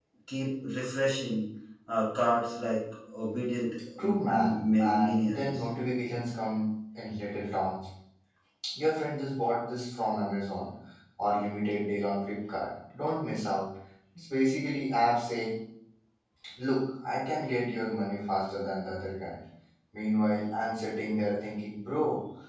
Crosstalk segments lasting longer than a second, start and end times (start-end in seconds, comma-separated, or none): 4.0-5.6